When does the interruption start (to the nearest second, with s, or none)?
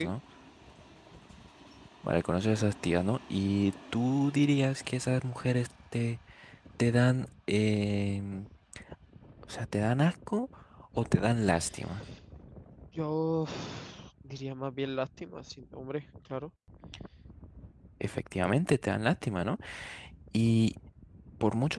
none